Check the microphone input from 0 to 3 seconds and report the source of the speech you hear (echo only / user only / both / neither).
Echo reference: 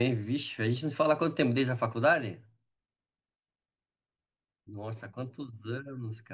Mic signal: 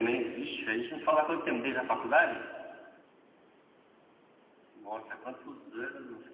echo only